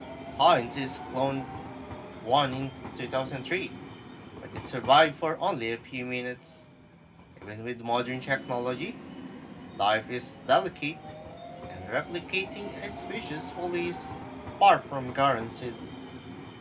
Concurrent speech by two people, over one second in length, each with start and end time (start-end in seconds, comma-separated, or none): none